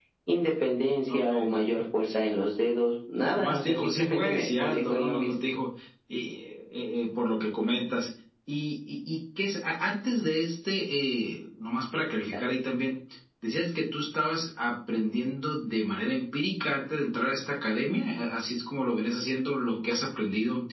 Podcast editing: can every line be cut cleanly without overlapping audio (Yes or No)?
No